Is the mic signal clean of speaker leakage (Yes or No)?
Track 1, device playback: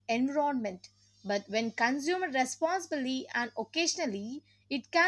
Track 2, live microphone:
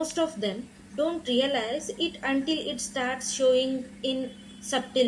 Yes